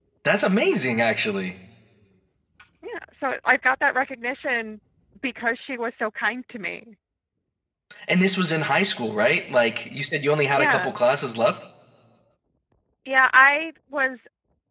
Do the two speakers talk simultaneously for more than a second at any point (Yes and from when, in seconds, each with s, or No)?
No